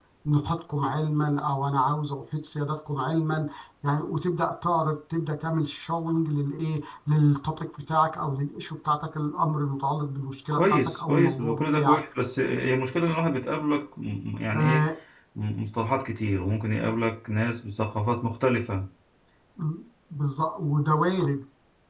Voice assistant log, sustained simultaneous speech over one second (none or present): present